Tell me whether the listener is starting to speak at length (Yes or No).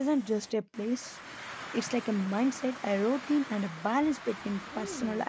Yes